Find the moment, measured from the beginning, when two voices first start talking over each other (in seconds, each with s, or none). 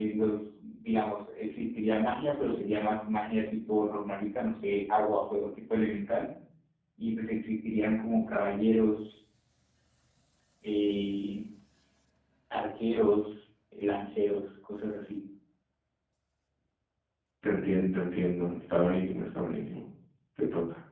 none